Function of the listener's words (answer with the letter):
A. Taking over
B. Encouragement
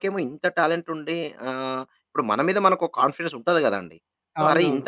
B